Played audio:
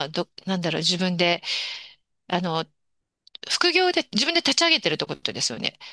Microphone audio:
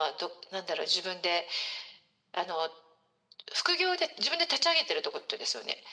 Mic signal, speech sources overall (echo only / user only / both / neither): echo only